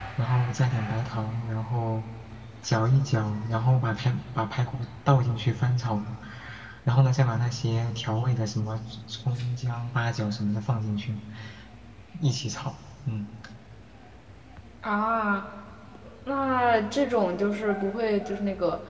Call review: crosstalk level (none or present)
none